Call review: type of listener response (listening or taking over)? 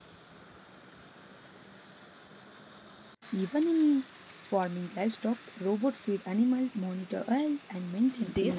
taking over